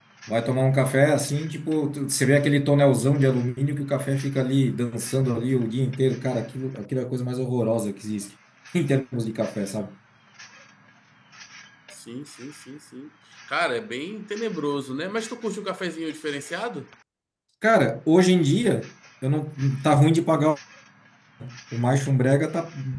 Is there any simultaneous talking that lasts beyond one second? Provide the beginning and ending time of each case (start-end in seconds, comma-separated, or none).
none